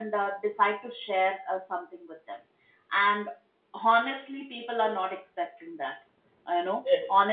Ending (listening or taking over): listening